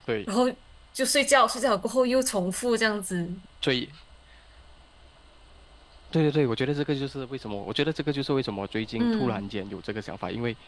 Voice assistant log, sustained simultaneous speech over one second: none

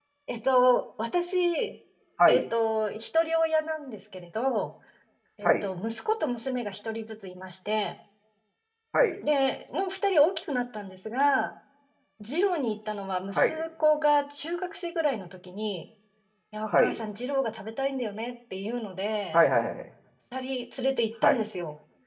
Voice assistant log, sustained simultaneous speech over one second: none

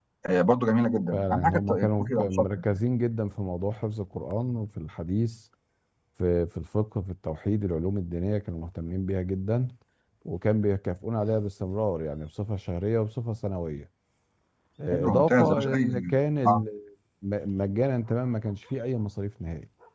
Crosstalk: present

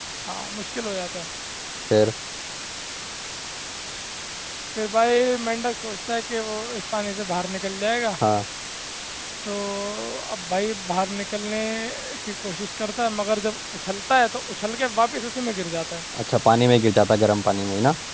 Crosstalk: none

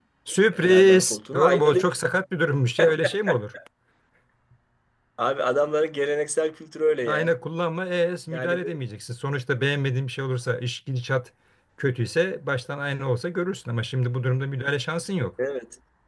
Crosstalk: present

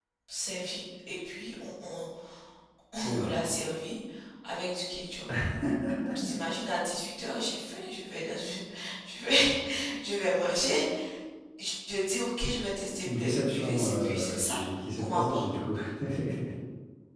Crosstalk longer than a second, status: present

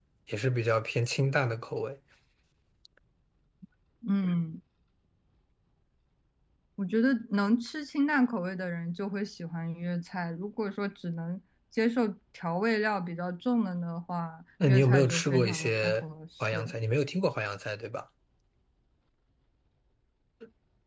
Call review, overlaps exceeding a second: present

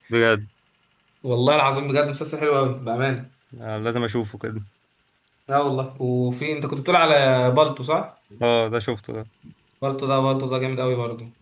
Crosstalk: none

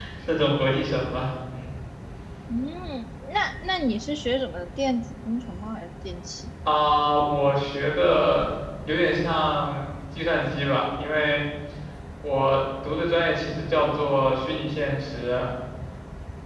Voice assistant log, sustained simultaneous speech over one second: none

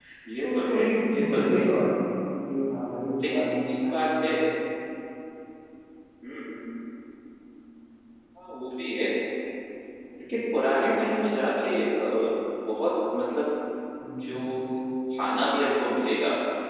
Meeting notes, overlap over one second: present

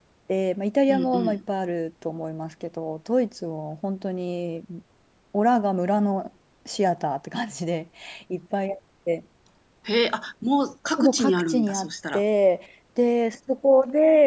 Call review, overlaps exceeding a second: present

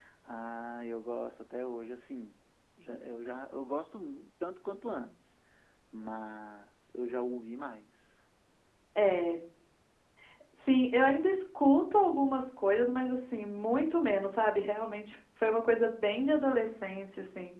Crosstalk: none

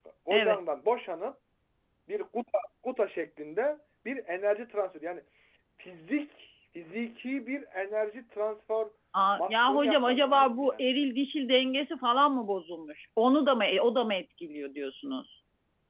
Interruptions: present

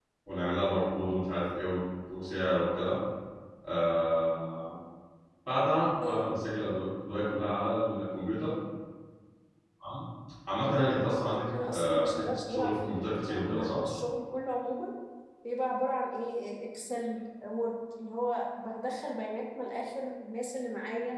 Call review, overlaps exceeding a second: present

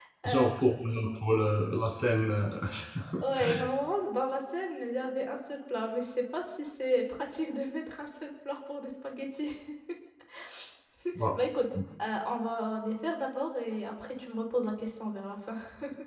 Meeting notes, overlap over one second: present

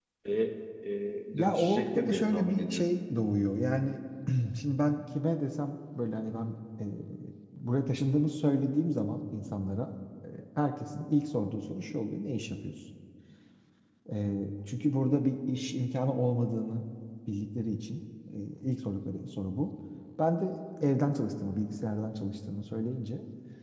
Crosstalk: present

